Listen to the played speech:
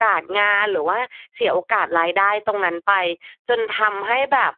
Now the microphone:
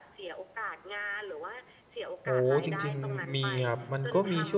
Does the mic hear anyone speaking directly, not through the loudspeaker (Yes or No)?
Yes